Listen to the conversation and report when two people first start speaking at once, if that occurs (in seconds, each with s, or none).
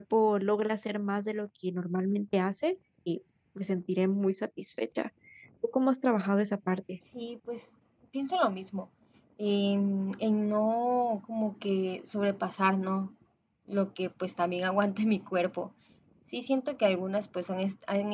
none